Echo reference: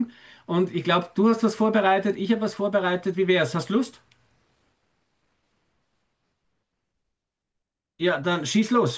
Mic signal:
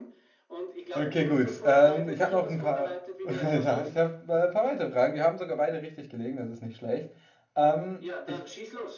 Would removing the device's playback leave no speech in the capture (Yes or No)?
No